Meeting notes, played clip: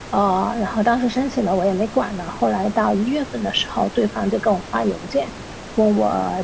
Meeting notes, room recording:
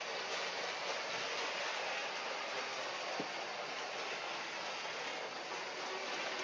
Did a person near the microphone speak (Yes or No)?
No